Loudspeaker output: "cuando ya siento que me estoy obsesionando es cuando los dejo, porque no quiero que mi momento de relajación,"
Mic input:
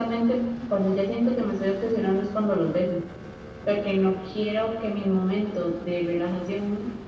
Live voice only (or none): none